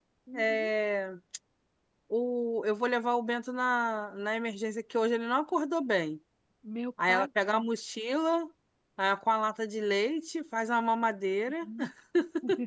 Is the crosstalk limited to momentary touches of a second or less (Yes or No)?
Yes